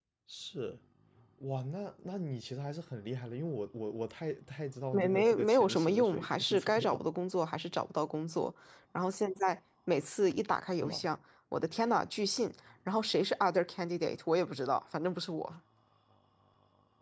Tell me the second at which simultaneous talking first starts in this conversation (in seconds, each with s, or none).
4.9 s